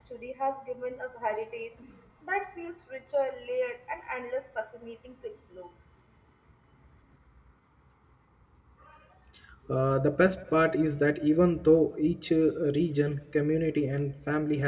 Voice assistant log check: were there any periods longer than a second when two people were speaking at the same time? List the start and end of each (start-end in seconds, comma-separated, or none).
none